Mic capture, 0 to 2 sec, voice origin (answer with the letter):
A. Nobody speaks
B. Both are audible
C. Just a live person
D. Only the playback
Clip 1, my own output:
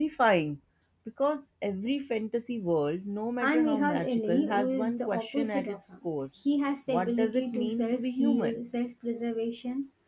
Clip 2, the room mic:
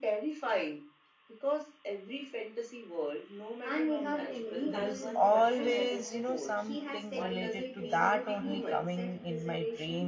D